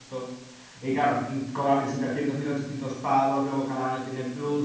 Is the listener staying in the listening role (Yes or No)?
Yes